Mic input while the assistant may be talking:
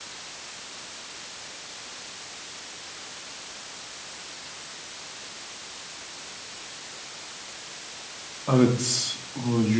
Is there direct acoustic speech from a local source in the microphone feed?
Yes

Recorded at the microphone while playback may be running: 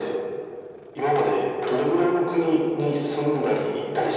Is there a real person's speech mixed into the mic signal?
No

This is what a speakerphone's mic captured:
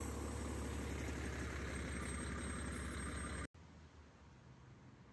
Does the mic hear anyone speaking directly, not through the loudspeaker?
No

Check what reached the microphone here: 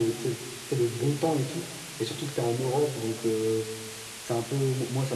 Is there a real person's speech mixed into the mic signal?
No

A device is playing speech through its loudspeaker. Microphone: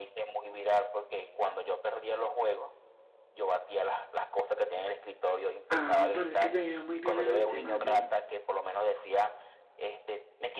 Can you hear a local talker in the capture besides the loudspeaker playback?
Yes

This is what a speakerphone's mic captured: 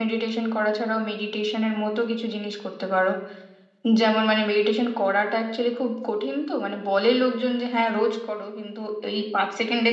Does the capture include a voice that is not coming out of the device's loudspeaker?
Yes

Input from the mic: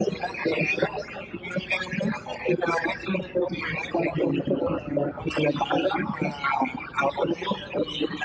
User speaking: No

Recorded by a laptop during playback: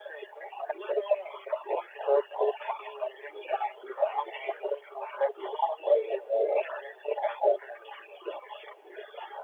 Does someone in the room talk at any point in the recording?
Yes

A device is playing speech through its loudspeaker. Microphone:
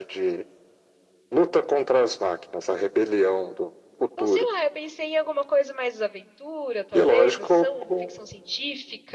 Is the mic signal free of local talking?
No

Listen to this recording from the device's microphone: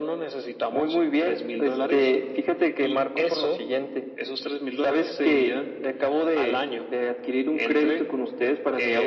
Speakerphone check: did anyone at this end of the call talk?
No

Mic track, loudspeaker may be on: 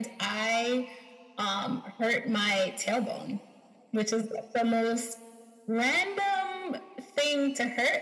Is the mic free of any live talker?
Yes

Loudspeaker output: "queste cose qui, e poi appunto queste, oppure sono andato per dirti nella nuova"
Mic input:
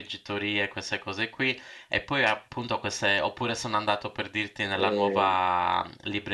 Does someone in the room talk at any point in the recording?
Yes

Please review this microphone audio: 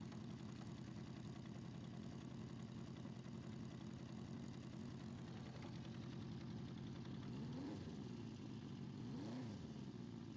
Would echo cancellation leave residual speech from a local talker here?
No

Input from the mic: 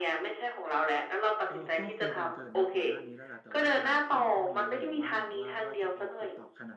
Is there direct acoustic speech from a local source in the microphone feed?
Yes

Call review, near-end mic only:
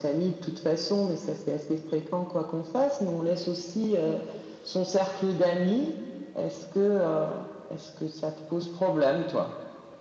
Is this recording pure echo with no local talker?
Yes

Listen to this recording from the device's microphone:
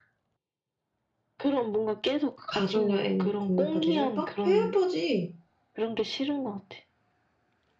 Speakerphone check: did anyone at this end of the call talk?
Yes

